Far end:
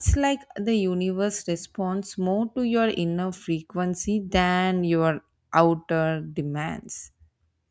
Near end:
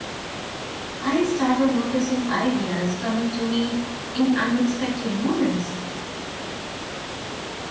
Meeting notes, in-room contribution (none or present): present